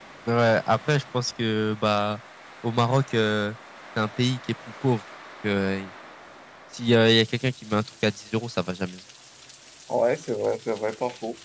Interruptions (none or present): none